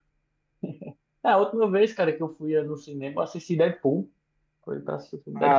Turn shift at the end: Yes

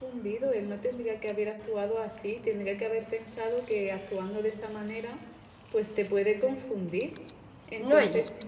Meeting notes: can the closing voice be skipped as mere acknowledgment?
Yes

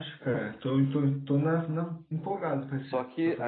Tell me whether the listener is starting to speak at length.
Yes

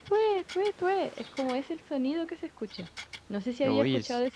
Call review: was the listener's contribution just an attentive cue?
Yes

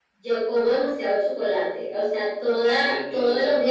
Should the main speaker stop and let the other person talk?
No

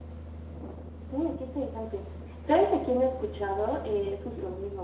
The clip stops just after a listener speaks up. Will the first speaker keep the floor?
Yes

